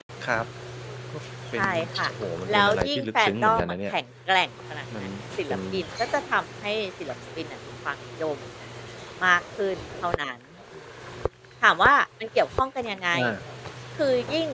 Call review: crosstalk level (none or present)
present